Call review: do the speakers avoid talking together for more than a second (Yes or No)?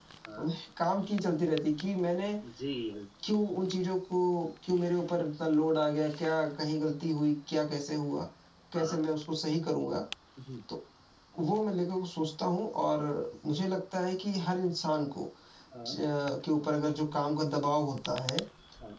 Yes